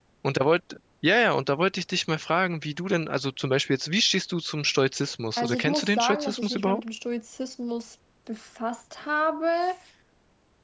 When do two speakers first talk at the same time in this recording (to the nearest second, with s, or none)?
5 s